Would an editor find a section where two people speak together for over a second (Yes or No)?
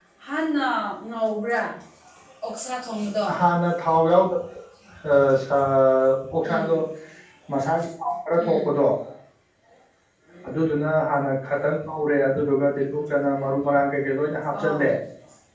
No